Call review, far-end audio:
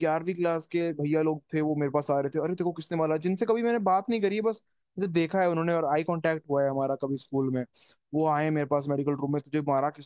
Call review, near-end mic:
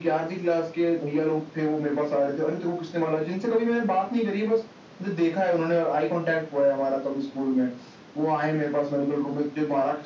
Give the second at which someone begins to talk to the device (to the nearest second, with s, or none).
none